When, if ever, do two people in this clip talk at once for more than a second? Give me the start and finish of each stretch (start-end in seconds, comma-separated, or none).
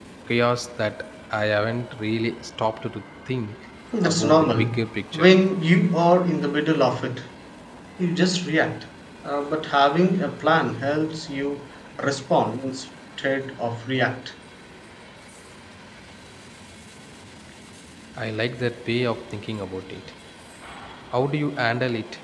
4.0-5.3